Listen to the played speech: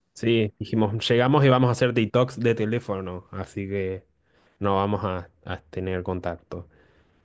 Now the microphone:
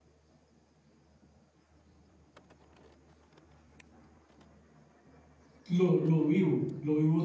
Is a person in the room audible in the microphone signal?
Yes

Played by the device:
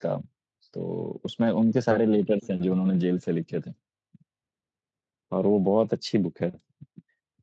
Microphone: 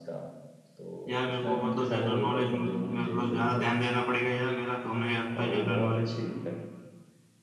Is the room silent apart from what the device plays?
No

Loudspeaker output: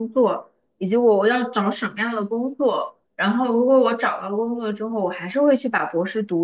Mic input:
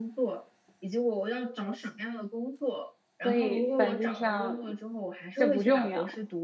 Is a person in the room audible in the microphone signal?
Yes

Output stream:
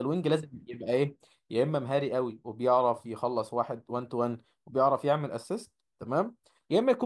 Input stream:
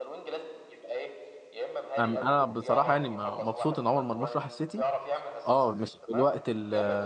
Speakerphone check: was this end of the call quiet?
No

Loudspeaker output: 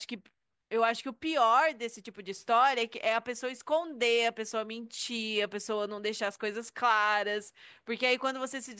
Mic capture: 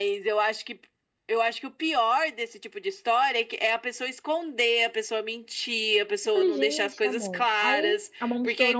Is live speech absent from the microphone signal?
No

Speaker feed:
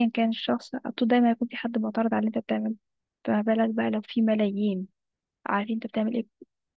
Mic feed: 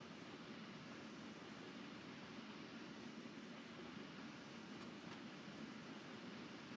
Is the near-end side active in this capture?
No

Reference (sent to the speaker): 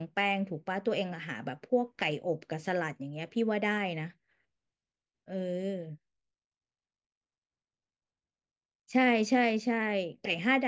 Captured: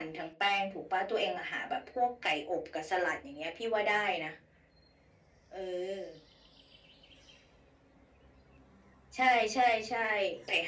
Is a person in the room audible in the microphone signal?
No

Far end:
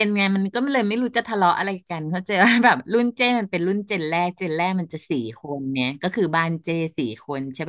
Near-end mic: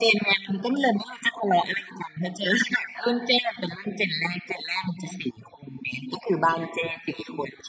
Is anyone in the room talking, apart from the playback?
No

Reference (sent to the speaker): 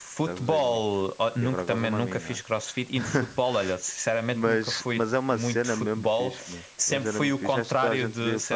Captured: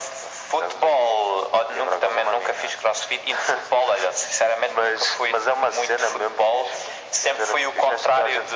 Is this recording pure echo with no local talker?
Yes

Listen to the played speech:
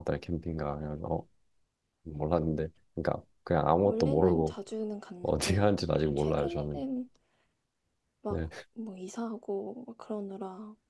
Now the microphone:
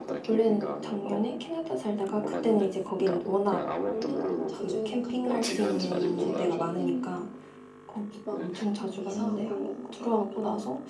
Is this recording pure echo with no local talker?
No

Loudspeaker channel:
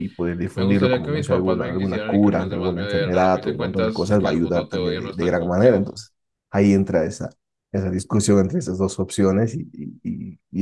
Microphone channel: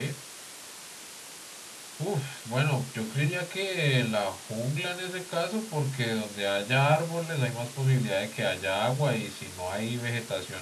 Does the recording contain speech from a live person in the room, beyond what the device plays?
Yes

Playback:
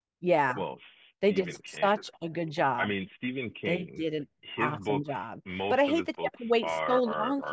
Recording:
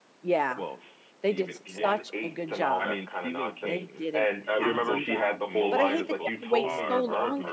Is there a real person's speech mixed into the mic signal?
Yes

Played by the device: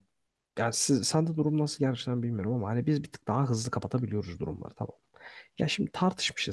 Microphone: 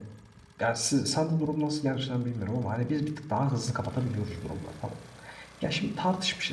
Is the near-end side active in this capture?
No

